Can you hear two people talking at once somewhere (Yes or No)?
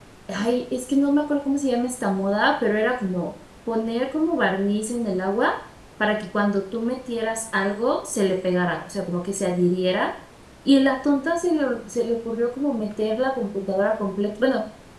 No